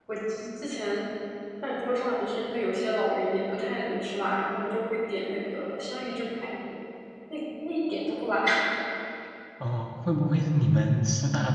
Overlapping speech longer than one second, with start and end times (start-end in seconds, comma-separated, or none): none